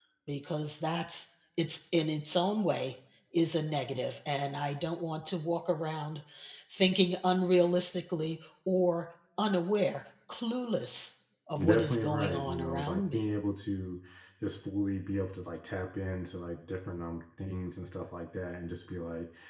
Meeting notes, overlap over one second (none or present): present